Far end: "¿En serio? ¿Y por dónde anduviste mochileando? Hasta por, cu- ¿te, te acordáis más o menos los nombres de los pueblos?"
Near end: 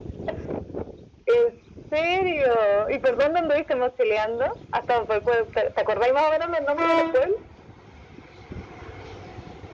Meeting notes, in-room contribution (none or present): none